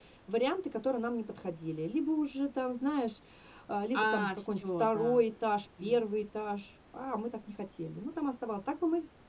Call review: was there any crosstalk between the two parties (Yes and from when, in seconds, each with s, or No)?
Yes, from 3.9 s